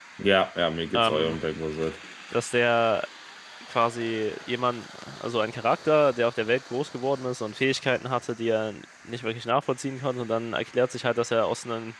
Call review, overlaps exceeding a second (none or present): none